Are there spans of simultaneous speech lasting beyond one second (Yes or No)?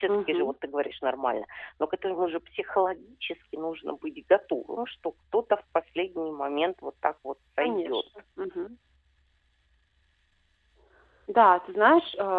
No